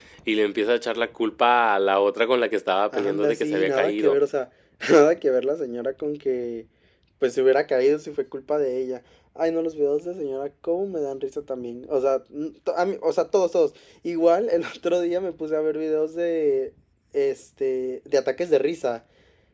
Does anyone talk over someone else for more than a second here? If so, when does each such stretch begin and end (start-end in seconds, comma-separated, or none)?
2.9-4.2